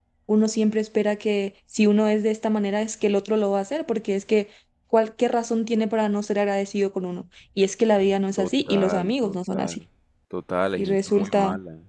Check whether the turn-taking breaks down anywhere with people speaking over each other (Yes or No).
Yes